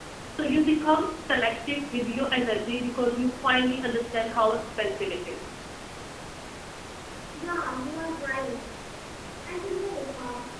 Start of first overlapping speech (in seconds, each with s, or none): none